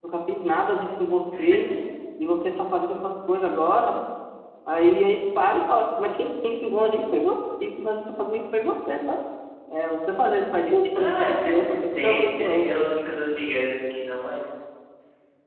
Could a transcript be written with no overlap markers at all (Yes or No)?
No